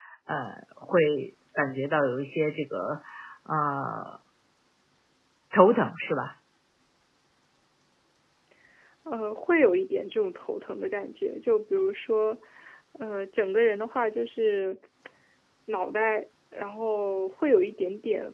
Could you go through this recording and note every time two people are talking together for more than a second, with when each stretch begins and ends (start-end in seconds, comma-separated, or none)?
none